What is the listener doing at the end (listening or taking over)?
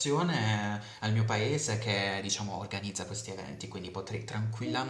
listening